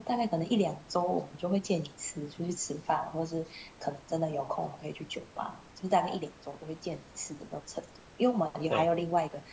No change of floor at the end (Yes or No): Yes